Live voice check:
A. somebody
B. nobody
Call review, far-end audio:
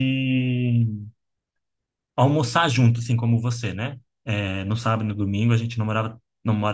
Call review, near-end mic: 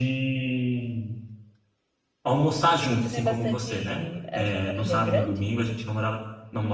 A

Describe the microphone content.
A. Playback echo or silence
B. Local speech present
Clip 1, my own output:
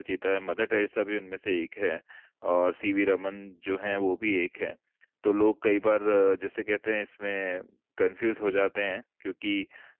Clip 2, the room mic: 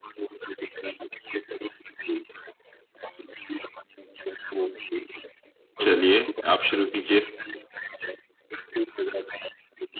B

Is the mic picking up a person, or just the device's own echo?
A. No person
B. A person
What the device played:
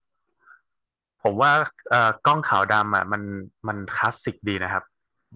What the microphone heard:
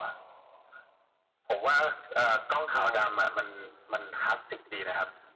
B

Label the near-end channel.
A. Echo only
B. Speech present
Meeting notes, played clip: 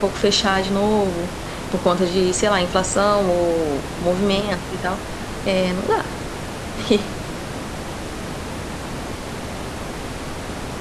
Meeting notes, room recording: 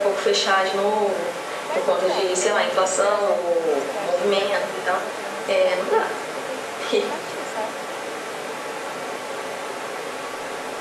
B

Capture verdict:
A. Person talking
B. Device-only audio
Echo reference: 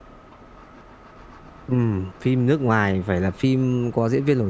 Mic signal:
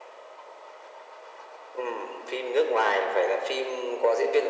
B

